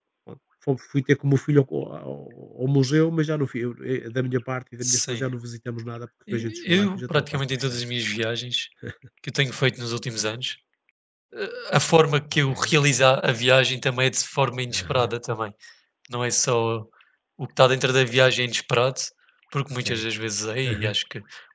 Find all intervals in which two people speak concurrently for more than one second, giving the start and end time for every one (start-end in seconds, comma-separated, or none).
6.3-7.8